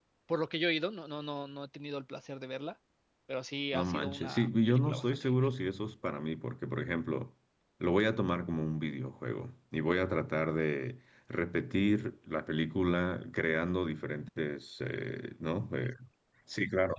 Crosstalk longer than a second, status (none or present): present